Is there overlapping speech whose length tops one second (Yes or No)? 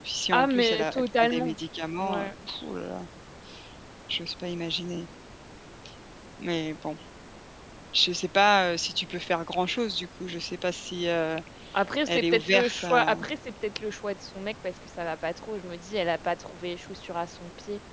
Yes